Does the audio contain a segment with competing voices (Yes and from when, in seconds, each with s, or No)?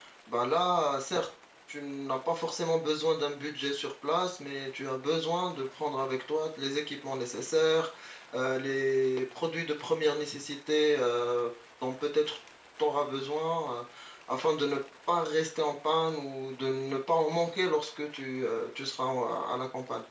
No